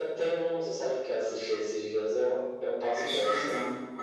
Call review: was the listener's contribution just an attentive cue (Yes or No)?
No